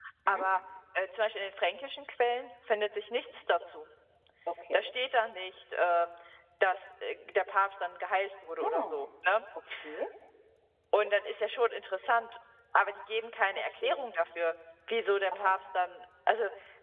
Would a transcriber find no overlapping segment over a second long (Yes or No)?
Yes